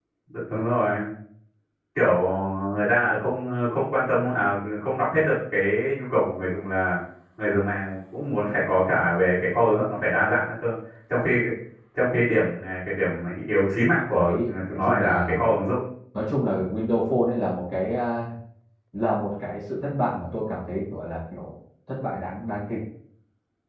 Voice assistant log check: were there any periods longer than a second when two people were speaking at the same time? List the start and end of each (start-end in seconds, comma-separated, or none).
14.1-15.4